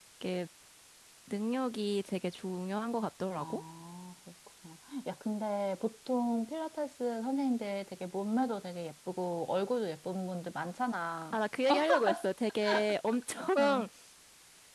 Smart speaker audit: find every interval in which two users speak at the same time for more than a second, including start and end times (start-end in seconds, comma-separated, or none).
none